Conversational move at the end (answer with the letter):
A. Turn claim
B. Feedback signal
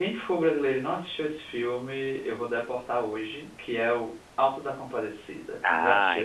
A